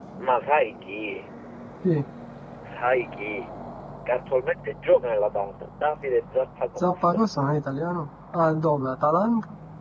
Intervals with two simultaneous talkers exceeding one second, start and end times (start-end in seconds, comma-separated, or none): none